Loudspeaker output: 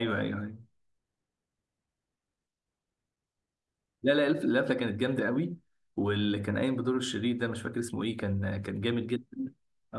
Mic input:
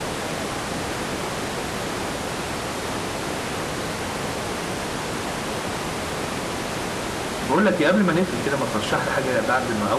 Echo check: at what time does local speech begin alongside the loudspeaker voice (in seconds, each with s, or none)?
7.4 s